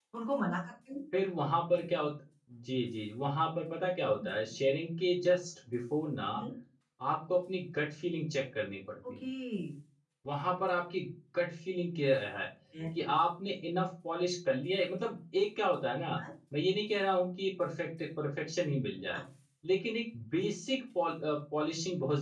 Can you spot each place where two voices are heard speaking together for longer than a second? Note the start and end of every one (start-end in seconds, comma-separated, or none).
none